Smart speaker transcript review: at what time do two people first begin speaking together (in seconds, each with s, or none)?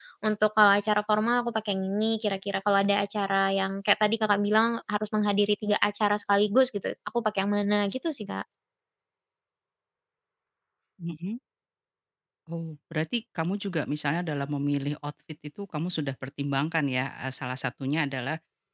none